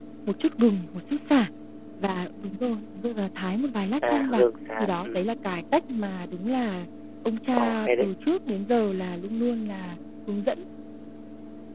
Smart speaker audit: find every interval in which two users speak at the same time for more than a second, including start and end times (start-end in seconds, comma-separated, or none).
none